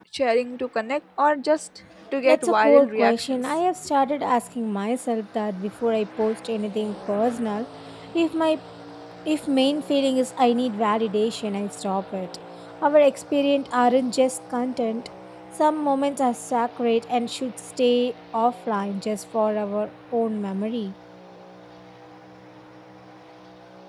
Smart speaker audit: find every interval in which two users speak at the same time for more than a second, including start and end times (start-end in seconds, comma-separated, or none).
2.2-3.5